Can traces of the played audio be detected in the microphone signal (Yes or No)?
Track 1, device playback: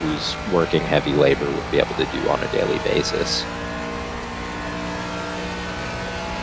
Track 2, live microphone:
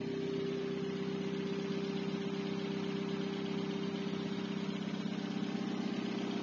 No